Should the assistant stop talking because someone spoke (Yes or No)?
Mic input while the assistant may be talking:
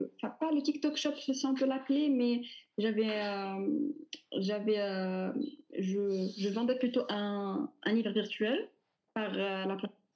No